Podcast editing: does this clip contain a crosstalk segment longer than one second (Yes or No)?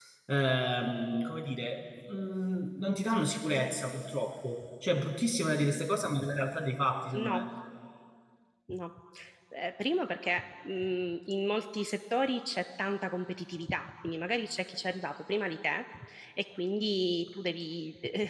No